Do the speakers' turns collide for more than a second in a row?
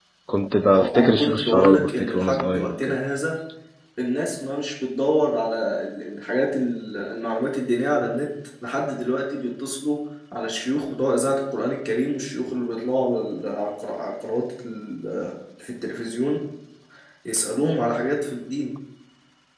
Yes, from 0.7 s

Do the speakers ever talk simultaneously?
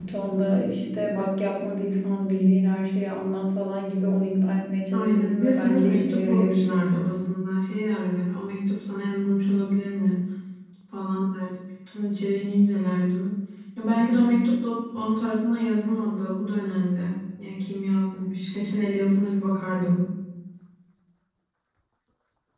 Yes, from 4.9 s

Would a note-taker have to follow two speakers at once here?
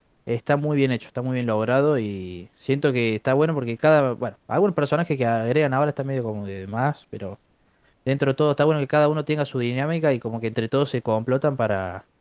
No

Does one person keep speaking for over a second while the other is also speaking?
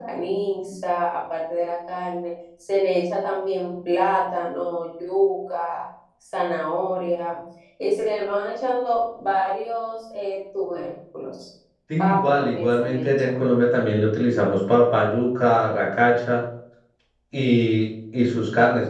Yes, from 12.0 s

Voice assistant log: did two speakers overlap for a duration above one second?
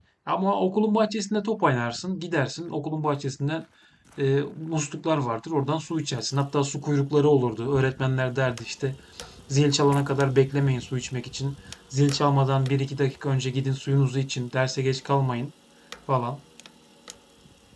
No

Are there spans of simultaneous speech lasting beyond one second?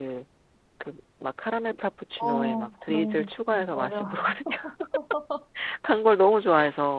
Yes, from 2.2 s

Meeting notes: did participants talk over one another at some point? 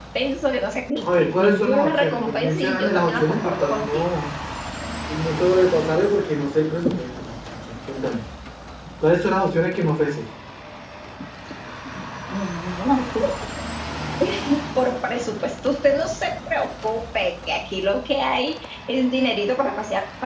Yes, from 1.0 s

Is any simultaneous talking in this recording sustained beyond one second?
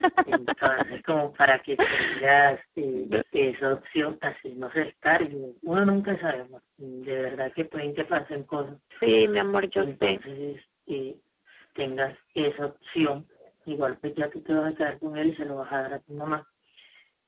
No

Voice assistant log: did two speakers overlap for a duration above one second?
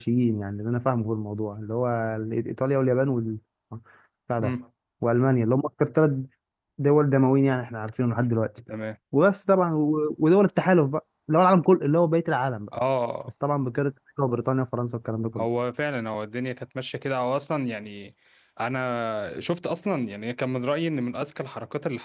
No

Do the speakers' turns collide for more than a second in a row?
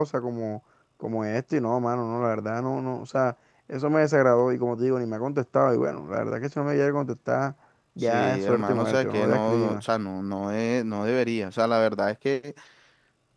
Yes, from 8.0 s

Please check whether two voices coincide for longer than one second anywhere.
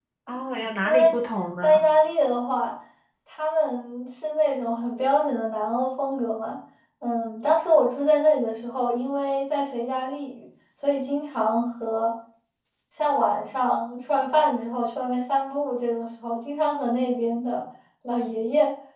No

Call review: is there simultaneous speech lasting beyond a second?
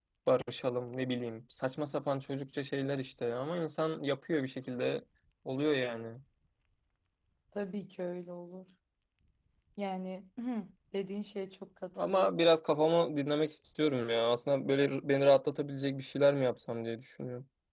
No

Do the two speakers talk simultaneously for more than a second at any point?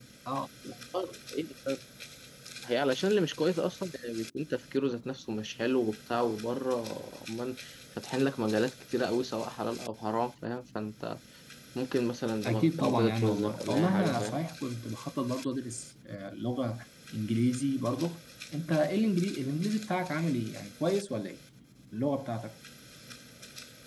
Yes, from 12.4 s

